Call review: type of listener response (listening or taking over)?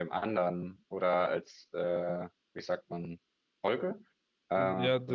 taking over